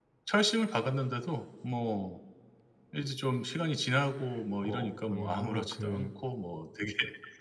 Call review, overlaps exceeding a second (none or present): present